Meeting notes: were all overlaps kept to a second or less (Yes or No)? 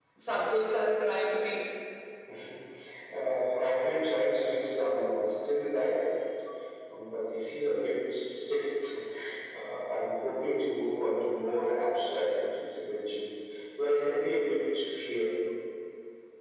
Yes